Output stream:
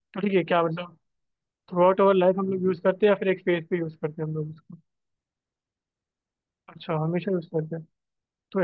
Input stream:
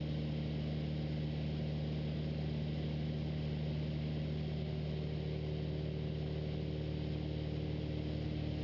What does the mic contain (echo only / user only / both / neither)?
neither